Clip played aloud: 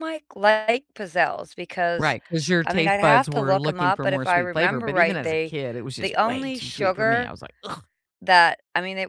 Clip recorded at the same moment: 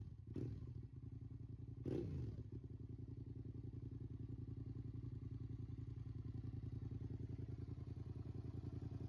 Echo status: none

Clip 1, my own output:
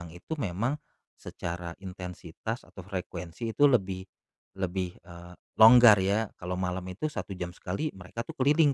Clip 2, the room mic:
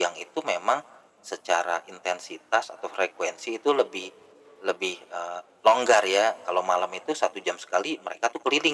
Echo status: present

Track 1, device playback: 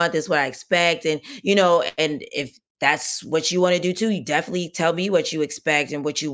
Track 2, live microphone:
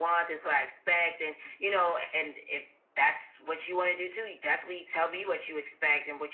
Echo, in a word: present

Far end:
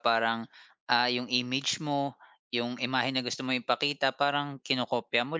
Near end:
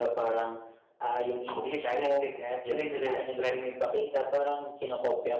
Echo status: present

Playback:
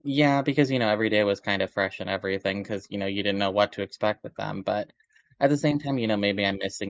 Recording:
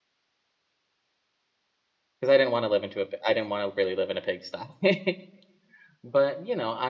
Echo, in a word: none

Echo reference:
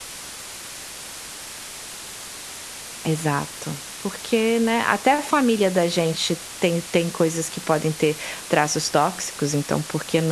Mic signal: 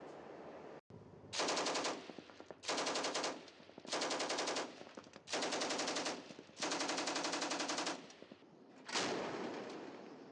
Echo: none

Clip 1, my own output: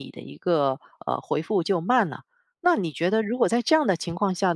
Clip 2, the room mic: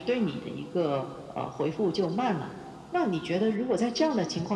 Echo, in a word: present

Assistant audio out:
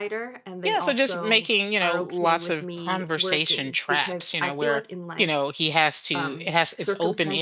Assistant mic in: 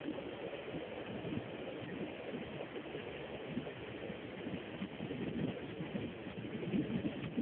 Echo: none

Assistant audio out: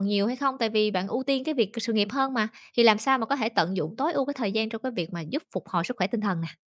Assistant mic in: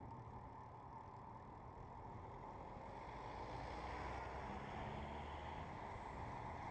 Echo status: none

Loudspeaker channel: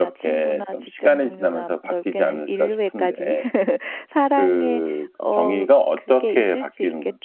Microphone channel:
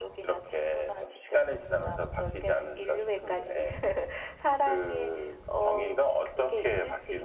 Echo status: present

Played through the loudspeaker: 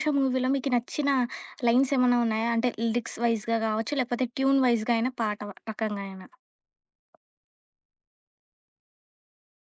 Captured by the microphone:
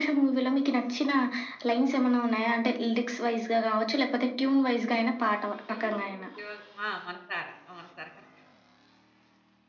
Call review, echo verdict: present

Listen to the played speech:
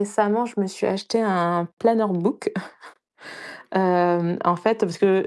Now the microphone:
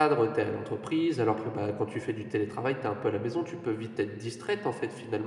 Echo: none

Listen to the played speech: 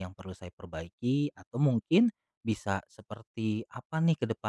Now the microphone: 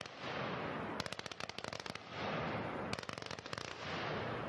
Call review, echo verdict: none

